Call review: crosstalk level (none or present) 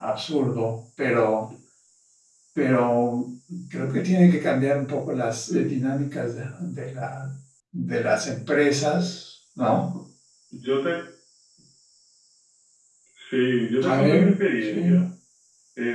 present